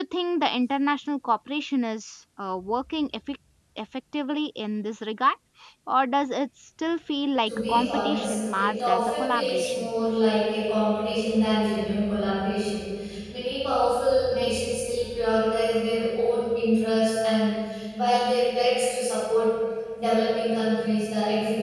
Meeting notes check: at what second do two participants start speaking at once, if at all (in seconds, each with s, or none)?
7.5 s